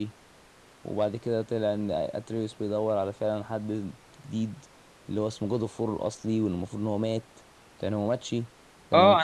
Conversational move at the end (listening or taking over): taking over